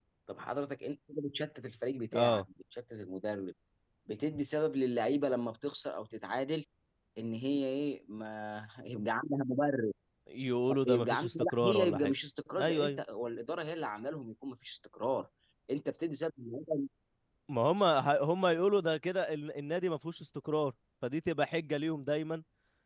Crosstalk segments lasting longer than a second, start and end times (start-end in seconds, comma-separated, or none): 10.8-12.1